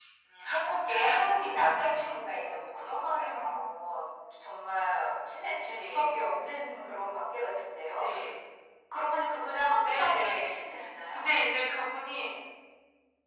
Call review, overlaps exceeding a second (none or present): present